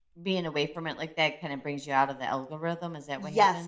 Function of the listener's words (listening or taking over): taking over